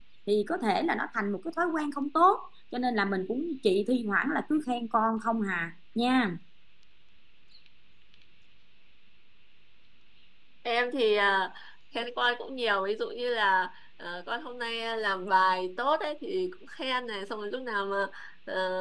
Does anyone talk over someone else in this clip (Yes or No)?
No